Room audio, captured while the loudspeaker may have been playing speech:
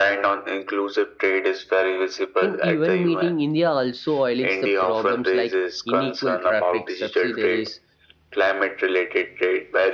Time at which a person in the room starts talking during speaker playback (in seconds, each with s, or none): 2.4 s